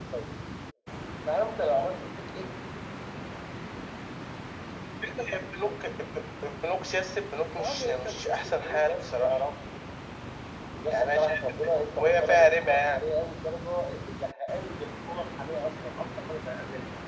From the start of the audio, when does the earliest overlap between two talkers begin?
7.6 s

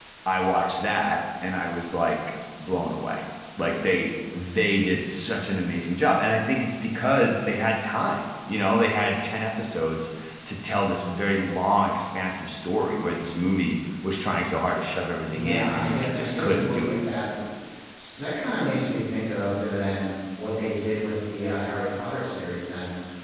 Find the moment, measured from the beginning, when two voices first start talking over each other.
15.3 s

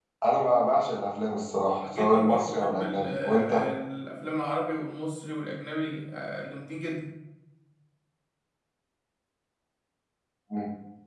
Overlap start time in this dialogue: 1.8 s

